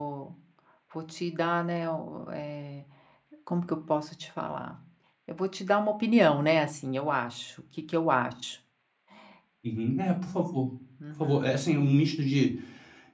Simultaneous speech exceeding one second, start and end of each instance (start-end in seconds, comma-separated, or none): none